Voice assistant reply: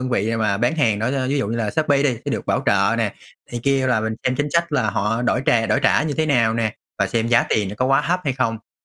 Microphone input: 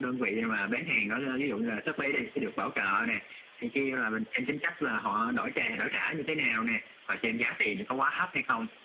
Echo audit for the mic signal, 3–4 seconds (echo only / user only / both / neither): echo only